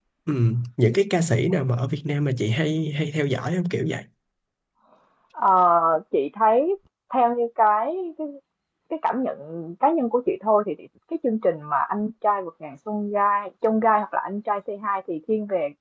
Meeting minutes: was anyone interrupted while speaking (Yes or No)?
No